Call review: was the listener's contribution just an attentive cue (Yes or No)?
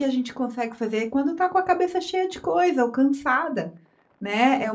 Yes